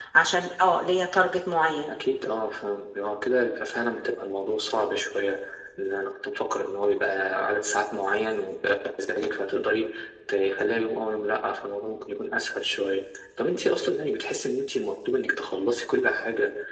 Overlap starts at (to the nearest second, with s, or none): none